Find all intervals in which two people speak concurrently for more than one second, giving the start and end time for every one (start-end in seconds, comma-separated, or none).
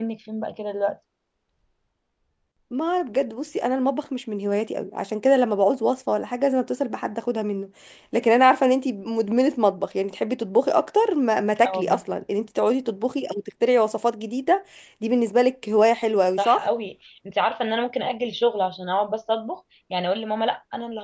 none